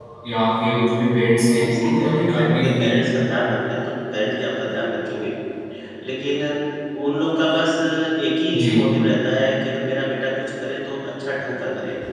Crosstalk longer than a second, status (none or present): present